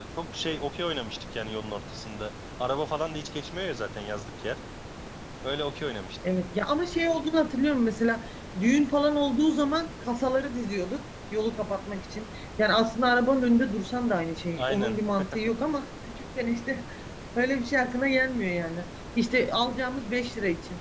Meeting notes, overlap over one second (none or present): none